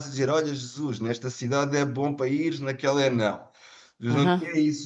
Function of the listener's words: listening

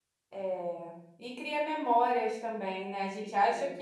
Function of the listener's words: listening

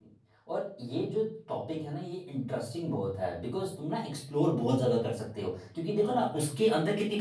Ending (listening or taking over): listening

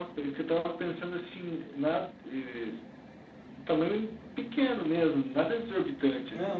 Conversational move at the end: taking over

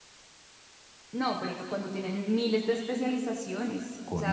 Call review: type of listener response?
listening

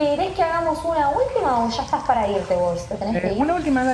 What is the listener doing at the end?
taking over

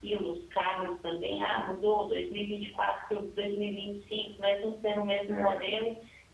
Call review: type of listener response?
listening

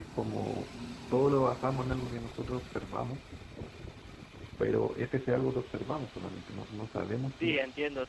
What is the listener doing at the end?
taking over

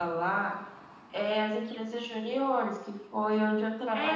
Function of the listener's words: taking over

